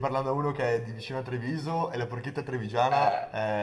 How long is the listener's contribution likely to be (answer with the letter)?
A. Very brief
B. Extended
B